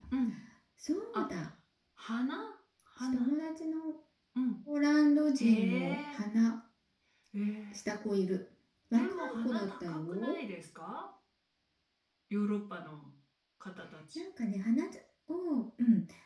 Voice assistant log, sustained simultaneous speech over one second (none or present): present